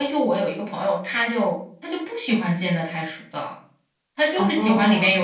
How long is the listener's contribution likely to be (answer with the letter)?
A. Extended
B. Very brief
B